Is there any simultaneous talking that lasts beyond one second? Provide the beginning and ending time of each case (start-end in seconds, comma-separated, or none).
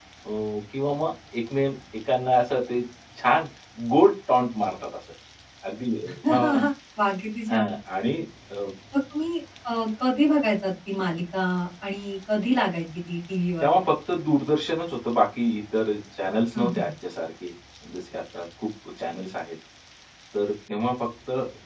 none